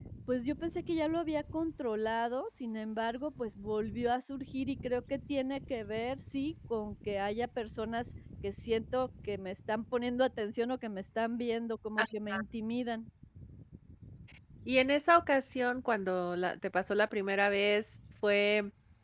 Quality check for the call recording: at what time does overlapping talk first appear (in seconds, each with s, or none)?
none